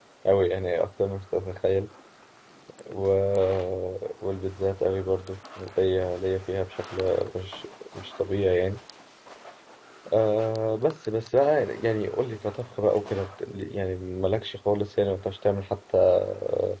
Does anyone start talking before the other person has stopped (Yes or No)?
No